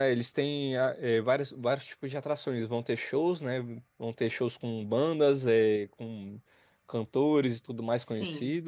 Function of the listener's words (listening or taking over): listening